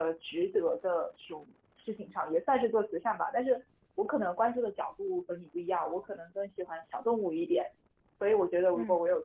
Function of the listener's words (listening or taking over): listening